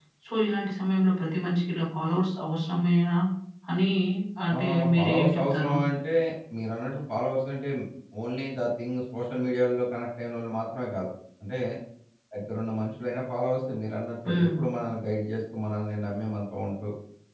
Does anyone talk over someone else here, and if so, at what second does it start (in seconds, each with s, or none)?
4.5 s